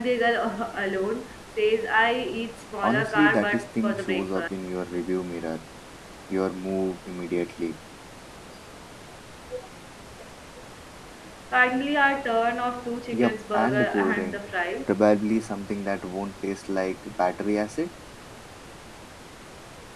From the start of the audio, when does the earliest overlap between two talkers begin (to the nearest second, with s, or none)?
3 s